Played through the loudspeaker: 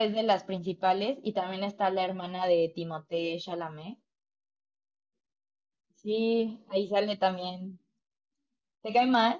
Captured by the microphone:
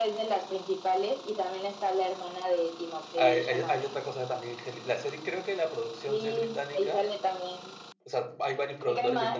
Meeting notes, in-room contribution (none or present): present